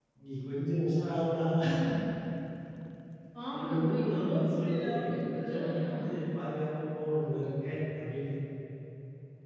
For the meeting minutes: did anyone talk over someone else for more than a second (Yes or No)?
Yes